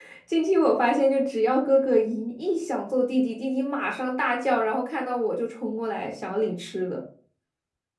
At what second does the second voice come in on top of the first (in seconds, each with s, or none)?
none